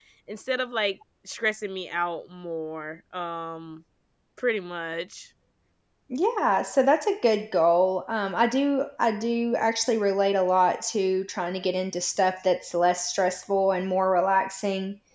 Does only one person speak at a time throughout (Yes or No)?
Yes